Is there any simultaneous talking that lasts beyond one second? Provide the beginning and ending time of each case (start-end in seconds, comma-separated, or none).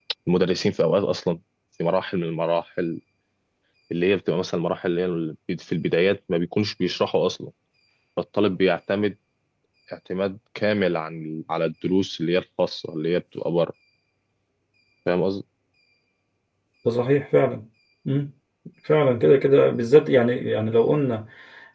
none